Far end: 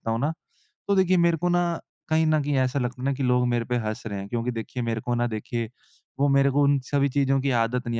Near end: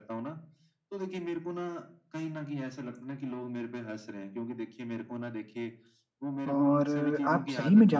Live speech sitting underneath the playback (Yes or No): No